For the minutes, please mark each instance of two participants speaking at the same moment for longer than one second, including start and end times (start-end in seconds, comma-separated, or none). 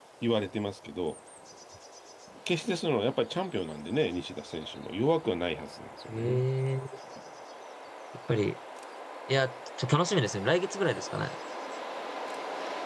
none